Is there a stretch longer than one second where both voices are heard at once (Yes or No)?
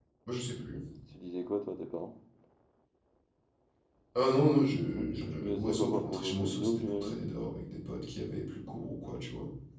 Yes